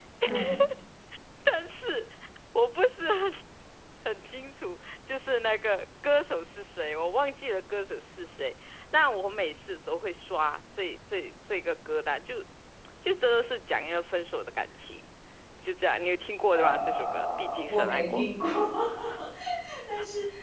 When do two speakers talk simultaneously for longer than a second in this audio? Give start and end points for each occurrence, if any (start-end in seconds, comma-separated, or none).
16.5-18.2